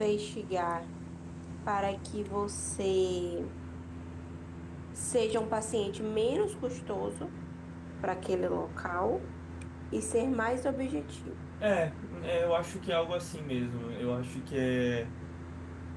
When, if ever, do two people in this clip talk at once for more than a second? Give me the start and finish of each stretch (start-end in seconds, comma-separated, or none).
none